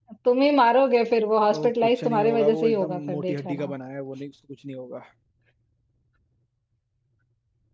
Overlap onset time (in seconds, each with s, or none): 1.5 s